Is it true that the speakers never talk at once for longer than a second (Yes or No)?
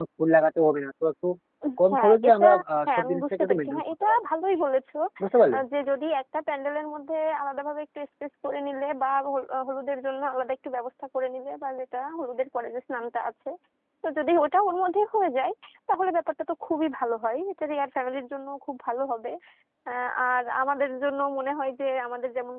No